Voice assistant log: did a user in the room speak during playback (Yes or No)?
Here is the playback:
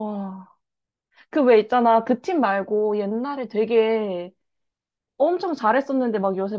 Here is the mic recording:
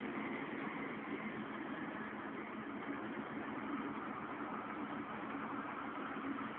No